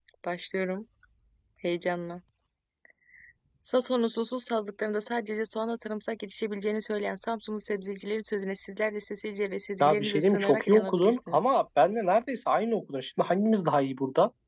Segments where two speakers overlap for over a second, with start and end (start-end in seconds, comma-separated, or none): 9.8-11.5